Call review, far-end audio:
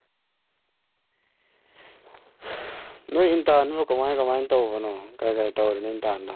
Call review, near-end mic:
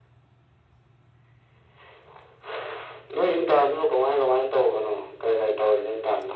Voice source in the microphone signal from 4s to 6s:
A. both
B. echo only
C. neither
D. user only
B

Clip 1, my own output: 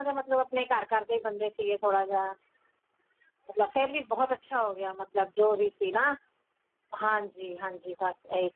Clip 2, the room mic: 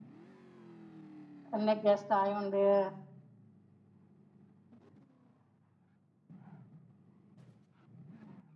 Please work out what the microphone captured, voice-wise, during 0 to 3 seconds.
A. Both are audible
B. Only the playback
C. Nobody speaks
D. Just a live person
D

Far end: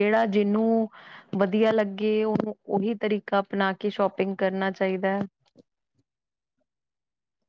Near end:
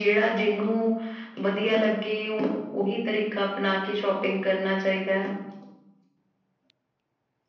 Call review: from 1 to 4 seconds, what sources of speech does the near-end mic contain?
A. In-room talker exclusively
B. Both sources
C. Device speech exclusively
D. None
C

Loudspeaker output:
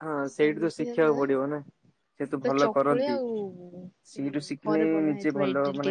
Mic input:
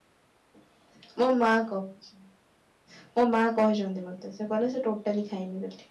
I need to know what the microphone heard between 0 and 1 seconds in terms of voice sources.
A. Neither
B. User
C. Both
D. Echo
A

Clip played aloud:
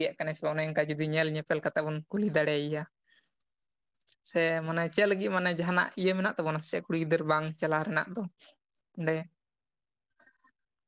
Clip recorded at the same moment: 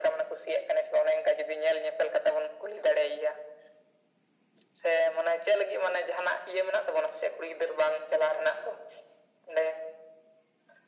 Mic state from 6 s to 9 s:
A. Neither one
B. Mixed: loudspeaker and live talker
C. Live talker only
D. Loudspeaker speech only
D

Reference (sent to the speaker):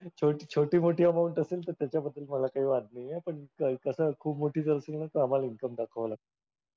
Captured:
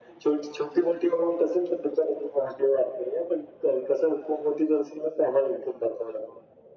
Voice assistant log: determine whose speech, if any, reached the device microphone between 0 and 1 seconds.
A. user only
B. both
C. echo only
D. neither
C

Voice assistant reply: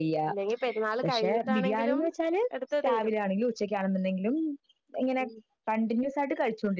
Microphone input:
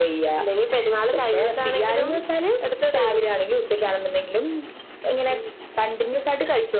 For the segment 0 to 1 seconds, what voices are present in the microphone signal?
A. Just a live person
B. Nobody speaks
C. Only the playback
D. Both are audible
C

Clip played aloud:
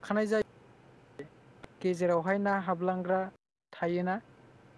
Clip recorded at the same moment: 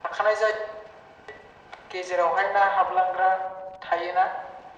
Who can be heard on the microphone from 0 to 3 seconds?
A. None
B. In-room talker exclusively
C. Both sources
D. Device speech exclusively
D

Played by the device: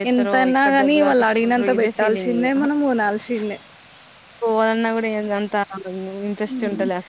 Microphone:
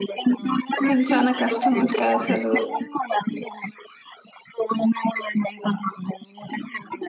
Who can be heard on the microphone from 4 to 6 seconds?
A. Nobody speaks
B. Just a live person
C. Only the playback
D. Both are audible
C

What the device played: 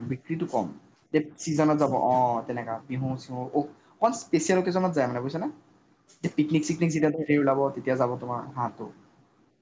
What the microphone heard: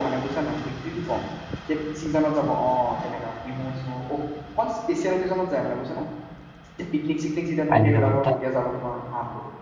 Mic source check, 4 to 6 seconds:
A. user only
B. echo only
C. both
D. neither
B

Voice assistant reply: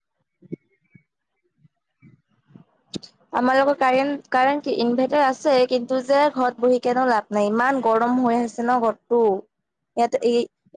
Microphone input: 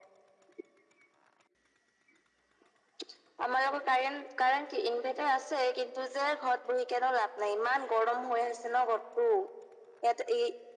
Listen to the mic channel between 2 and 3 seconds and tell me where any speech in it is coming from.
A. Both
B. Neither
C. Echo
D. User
B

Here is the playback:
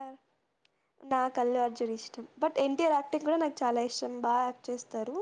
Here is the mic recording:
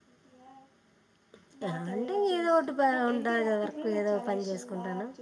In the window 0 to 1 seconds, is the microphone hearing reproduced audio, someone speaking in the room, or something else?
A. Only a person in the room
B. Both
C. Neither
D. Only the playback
D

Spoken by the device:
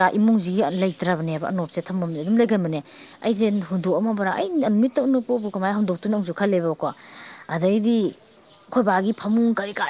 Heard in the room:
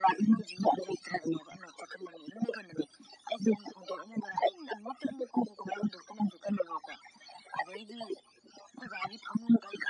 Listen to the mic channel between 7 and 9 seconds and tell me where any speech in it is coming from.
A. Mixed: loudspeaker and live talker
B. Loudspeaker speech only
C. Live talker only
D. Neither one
B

